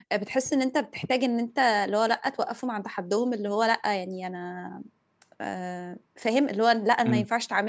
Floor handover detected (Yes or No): No